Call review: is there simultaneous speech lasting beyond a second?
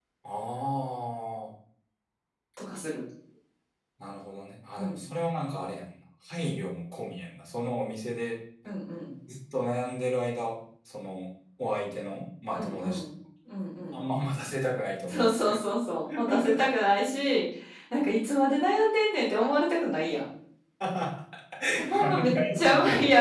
Yes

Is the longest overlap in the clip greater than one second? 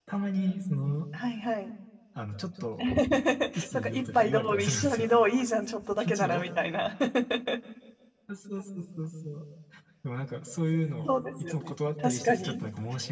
Yes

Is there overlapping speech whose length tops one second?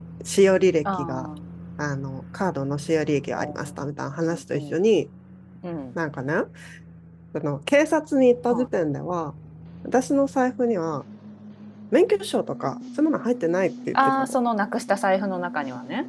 No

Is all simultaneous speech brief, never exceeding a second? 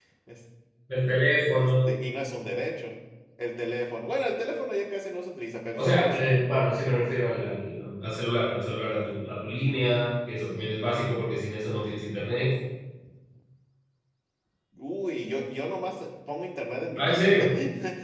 Yes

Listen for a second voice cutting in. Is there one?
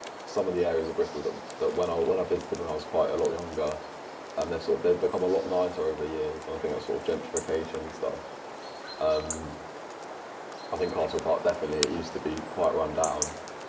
No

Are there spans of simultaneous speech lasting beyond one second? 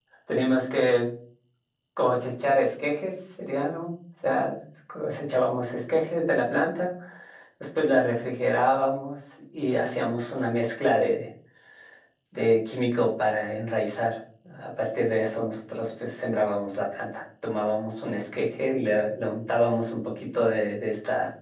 No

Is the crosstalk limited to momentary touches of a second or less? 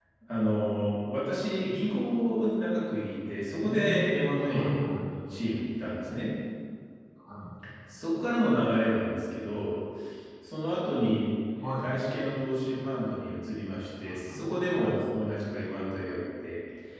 No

